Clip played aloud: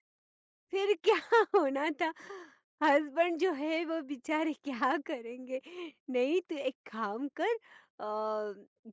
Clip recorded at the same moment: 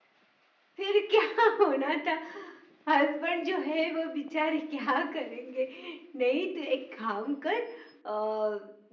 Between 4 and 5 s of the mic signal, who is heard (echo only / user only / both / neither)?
echo only